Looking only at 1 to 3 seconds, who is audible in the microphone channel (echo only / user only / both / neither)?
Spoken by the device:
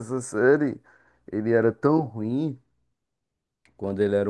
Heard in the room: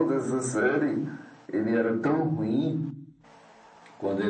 echo only